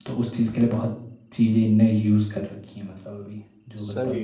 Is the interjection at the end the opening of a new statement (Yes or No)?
Yes